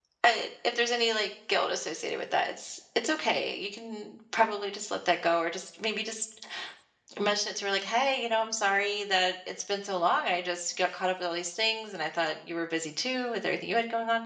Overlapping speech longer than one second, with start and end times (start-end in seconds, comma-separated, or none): none